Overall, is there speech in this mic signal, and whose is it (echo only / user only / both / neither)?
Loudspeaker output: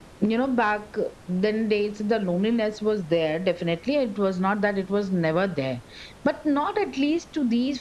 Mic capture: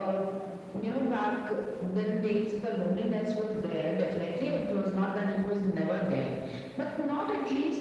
echo only